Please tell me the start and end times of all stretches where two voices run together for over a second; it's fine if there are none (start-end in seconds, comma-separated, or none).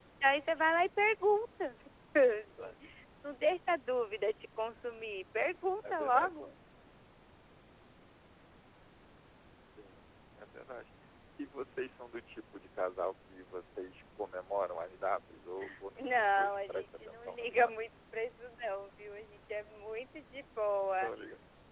16.0-17.7